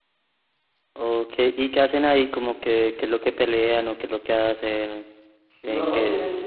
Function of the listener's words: taking over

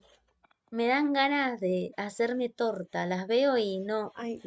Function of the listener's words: taking over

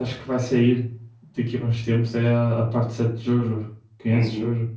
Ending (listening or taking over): taking over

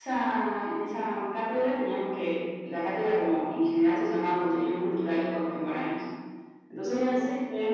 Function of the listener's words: listening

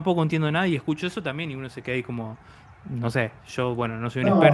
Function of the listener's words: listening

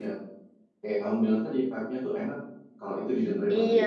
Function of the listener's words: taking over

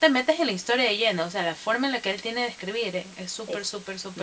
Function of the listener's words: taking over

